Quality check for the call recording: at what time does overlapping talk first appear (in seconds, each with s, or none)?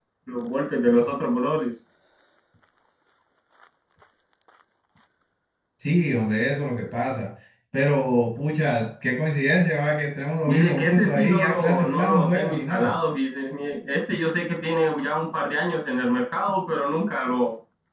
10.5 s